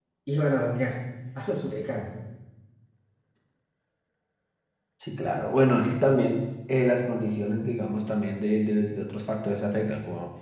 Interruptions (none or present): none